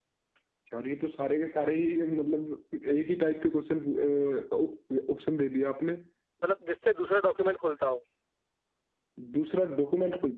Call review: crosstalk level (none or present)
none